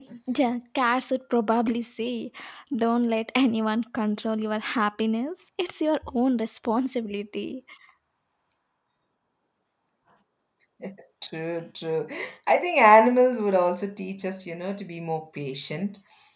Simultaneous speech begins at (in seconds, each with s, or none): none